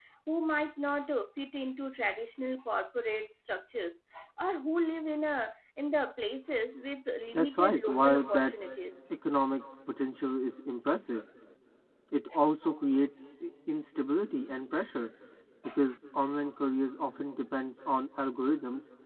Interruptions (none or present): present